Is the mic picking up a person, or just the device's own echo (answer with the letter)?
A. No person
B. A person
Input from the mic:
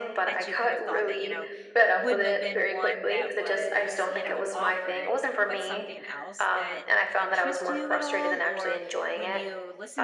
B